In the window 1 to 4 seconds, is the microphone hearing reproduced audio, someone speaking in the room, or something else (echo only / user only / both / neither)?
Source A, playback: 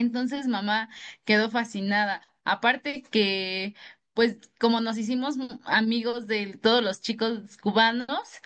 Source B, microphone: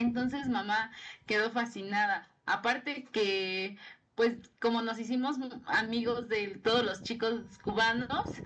echo only